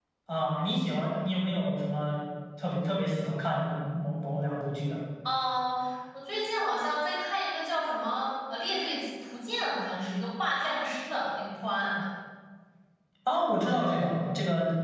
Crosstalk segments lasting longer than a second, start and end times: none

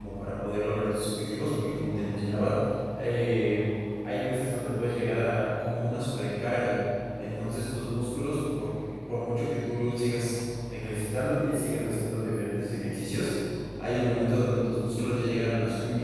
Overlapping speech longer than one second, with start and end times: none

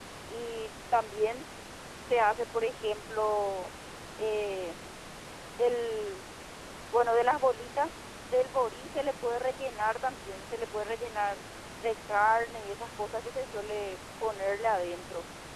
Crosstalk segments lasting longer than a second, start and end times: none

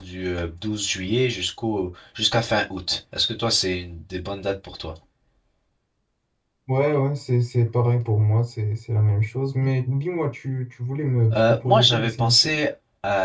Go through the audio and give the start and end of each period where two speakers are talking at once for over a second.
11.3-12.6

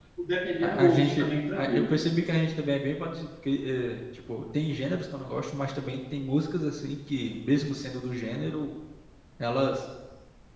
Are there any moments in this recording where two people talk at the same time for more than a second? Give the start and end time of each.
0.6-1.9

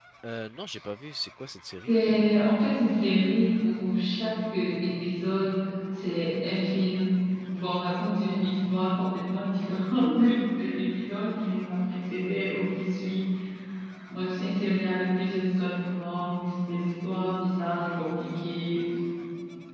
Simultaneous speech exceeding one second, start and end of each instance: none

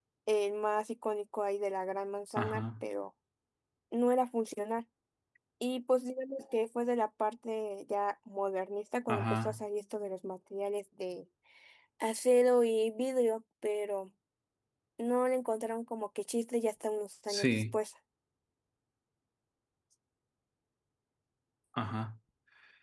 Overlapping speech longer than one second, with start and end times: none

